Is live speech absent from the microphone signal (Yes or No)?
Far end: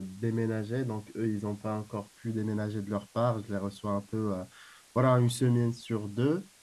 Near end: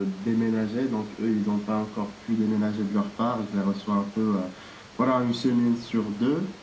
Yes